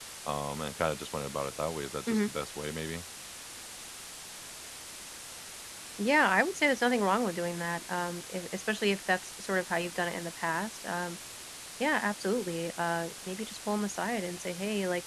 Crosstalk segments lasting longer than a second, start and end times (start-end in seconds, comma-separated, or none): none